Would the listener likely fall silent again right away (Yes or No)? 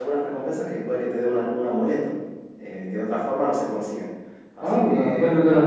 No